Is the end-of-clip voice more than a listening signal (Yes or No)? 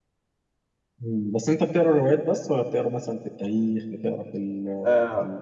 Yes